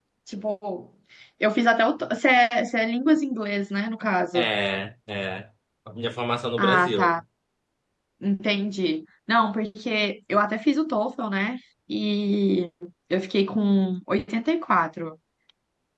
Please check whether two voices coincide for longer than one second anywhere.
No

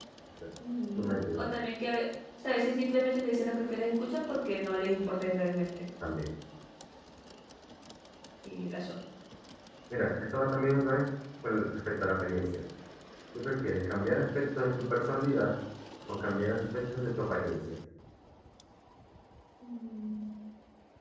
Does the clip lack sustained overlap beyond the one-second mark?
Yes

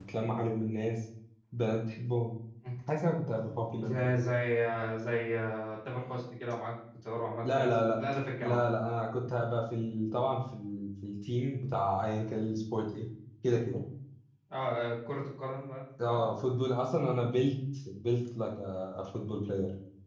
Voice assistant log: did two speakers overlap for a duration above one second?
No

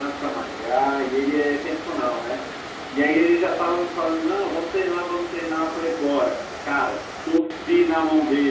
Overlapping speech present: No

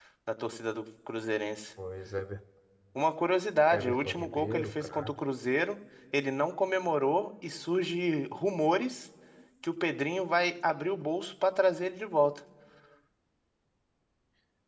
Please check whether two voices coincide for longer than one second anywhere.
Yes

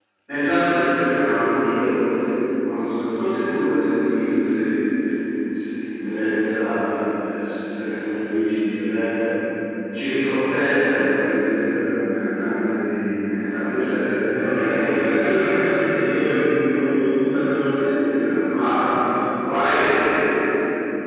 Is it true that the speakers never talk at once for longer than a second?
No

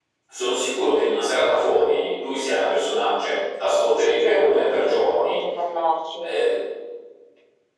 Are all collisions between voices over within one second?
No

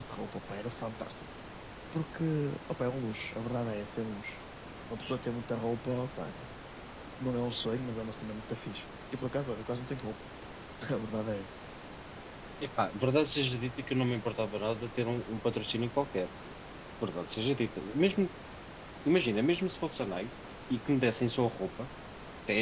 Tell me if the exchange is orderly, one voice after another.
Yes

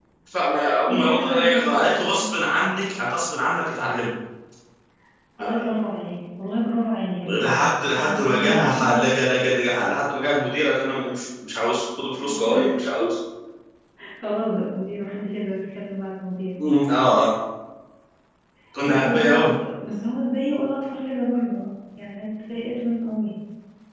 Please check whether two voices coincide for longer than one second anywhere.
Yes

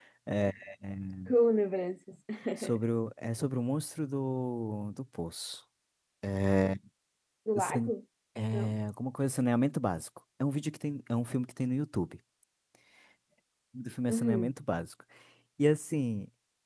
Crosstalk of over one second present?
No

